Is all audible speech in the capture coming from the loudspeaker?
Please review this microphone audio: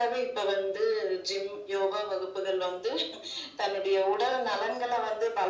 Yes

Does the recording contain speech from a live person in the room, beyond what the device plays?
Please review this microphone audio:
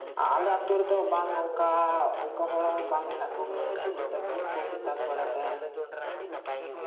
Yes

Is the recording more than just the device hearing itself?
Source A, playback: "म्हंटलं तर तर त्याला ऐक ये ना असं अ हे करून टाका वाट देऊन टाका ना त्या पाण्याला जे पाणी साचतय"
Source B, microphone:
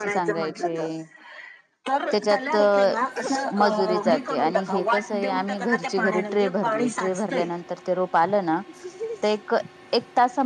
Yes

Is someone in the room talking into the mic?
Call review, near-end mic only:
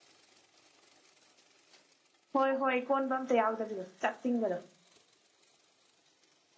Yes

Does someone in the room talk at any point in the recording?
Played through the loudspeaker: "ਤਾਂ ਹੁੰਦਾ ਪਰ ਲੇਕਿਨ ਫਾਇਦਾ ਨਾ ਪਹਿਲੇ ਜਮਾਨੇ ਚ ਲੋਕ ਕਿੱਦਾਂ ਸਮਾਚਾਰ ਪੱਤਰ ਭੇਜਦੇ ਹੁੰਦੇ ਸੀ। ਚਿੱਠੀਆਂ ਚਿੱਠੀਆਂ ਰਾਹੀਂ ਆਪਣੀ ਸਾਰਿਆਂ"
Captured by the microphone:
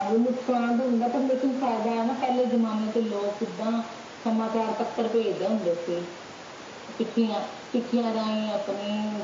No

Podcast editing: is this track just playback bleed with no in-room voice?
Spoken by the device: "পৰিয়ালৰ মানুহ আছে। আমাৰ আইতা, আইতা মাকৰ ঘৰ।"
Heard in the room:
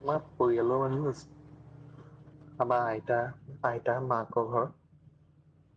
Yes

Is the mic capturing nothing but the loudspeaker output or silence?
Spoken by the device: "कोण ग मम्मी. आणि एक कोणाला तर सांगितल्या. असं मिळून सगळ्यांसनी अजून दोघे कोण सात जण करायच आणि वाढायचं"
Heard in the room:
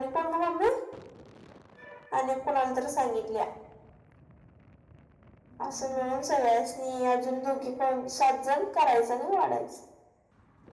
Yes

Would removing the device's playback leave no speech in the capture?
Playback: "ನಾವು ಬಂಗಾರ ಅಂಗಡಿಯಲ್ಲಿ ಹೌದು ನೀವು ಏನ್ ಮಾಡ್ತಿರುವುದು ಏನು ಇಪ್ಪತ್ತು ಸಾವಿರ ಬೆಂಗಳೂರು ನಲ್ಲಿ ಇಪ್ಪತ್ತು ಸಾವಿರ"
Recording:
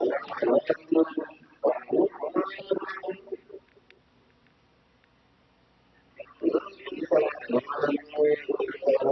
Yes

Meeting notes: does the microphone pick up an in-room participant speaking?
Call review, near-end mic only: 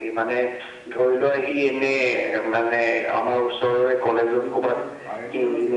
Yes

